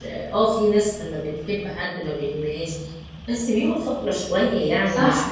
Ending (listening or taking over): listening